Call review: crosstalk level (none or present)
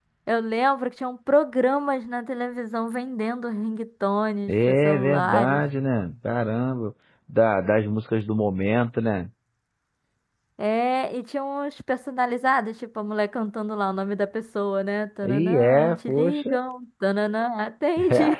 present